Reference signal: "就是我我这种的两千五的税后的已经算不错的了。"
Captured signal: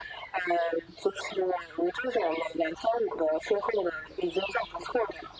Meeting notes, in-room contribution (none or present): none